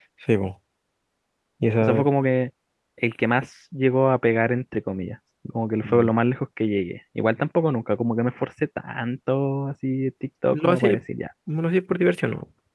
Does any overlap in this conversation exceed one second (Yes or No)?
No